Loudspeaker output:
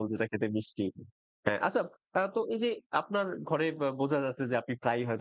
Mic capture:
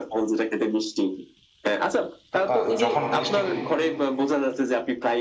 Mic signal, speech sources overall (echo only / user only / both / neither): both